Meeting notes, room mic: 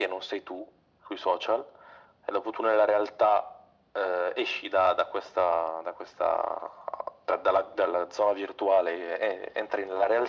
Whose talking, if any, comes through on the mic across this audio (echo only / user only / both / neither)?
echo only